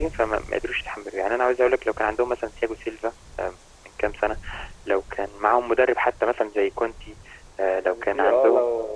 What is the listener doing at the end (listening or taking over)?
taking over